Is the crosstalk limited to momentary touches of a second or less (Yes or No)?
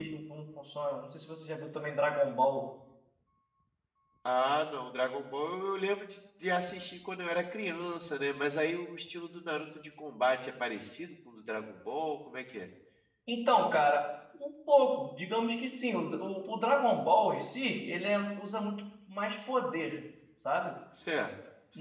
Yes